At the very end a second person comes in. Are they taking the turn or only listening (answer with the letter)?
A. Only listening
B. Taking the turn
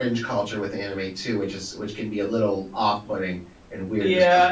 B